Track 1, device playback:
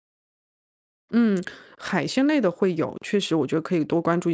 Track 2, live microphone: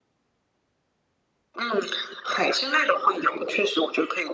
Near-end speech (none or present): none